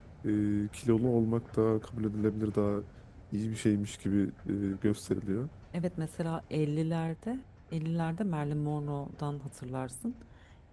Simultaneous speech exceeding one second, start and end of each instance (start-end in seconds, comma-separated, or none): none